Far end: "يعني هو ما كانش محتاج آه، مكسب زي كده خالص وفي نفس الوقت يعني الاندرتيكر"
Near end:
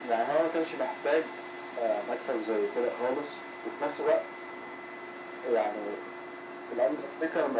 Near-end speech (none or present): none